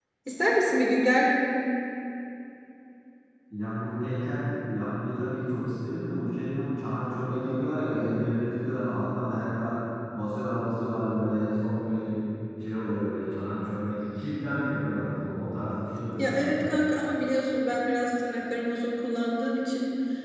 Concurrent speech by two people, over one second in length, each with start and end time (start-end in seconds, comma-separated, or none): none